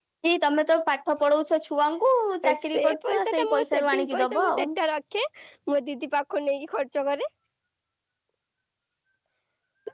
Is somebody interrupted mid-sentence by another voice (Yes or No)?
Yes